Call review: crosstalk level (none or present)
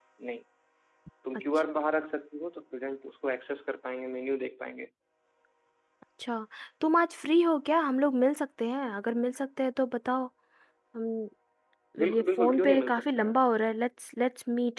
present